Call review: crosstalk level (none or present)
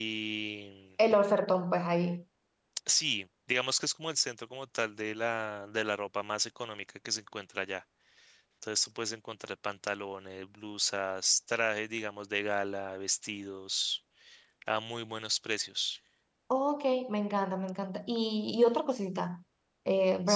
none